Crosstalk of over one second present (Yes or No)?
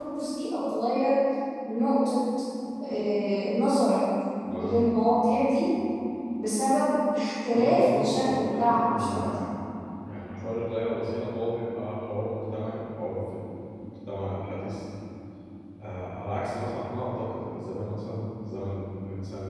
Yes